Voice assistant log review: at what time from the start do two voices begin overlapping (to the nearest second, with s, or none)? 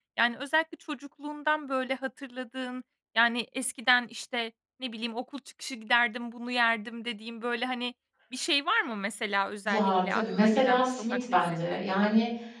10 s